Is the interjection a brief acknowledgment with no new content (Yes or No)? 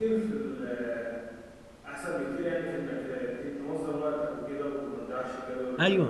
No